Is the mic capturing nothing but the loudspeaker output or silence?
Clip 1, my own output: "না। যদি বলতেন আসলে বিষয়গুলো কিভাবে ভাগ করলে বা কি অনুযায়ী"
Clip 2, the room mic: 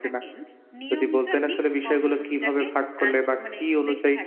No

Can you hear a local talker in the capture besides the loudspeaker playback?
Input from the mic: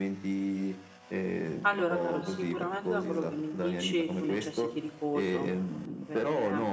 Yes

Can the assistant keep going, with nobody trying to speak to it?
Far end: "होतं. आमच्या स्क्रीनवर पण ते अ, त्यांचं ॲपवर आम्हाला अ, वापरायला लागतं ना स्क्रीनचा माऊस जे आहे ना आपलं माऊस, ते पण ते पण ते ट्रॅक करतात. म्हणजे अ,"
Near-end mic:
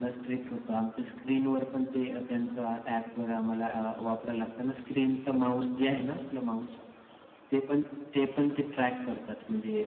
Yes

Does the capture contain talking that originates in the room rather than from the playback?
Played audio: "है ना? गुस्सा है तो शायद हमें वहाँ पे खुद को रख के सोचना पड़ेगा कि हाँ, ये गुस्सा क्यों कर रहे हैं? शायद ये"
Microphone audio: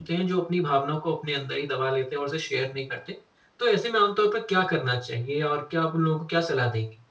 Yes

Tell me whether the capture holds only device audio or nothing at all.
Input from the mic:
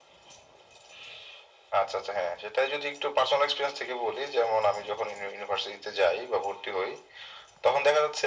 Yes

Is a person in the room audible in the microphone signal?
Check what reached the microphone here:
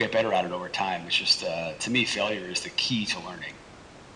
No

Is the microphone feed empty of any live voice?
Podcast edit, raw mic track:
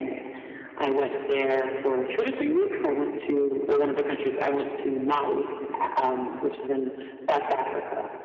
Yes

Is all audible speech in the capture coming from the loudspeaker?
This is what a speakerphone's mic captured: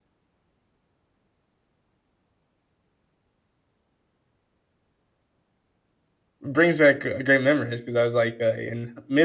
No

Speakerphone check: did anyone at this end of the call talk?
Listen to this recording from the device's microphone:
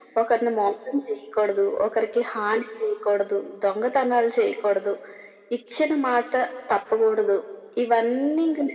No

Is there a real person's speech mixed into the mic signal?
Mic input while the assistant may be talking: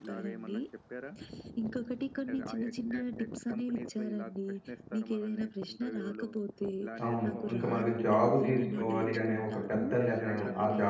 Yes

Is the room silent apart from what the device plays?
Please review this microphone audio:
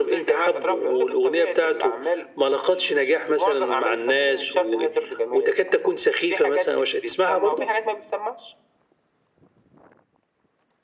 Yes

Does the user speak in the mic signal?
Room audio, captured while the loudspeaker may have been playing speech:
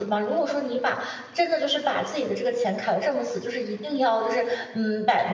Yes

